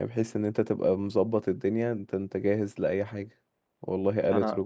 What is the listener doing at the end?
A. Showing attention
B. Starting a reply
A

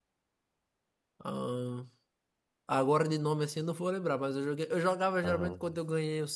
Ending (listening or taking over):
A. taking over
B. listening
B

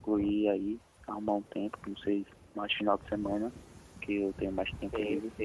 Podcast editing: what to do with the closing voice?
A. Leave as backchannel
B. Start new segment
B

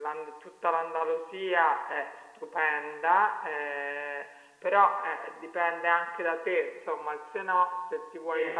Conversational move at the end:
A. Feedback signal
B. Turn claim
A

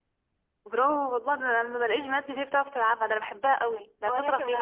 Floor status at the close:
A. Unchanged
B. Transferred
B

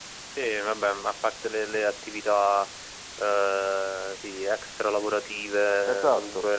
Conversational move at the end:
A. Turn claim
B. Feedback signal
B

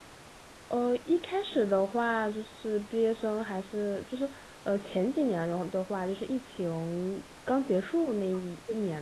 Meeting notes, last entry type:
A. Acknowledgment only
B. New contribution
A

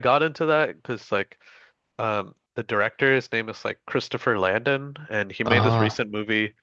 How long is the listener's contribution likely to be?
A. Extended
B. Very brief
B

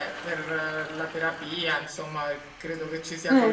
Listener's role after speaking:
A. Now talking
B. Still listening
B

